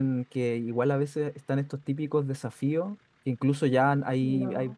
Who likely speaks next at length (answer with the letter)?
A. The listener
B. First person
B